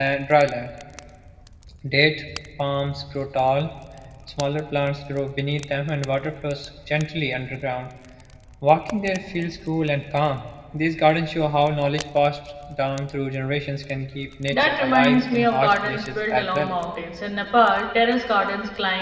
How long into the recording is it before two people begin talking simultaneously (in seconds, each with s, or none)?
14.5 s